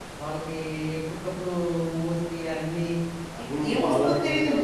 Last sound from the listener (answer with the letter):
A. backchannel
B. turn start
B